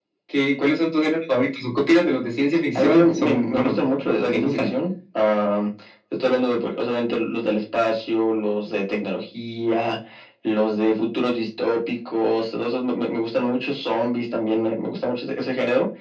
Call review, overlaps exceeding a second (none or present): present